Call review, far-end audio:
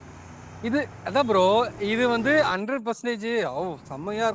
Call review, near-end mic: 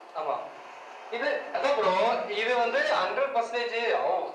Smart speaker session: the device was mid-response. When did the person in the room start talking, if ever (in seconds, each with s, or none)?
none